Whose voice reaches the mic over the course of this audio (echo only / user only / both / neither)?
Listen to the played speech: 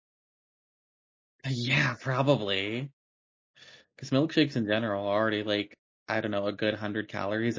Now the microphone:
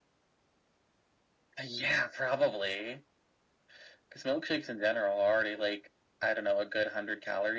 echo only